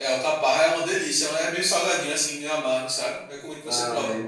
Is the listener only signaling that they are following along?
No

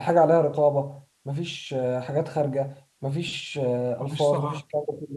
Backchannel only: Yes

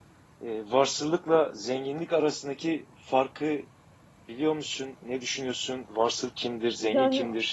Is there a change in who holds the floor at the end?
Yes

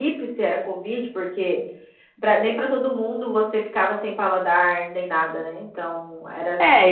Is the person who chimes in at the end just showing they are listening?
No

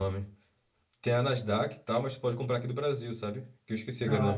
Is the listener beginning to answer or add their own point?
Yes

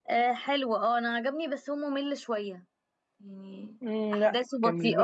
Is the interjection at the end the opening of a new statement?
Yes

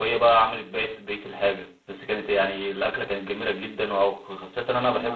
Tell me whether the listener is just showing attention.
Yes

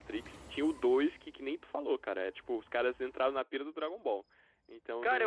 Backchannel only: No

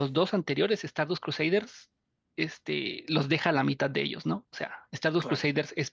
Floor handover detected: No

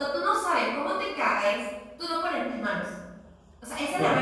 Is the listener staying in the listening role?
Yes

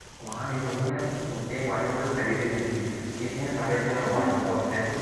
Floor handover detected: No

